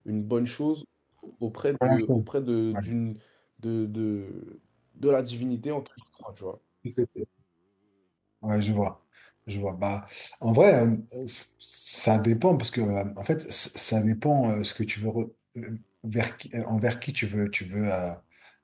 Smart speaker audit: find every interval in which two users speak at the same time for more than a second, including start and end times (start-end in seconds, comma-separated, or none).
none